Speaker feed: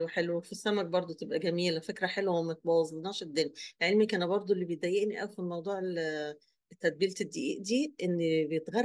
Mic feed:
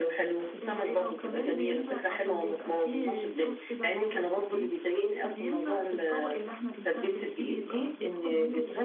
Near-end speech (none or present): present